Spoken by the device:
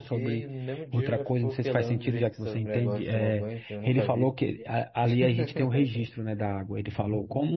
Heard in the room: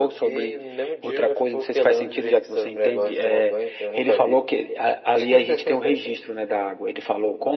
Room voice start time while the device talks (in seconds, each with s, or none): none